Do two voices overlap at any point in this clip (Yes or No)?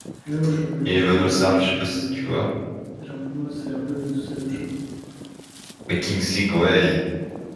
Yes